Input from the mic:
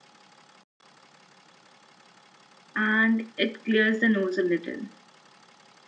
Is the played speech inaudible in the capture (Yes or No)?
Yes